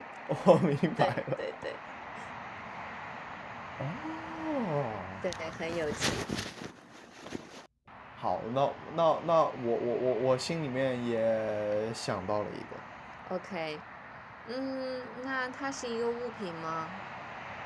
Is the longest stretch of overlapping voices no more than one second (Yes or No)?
Yes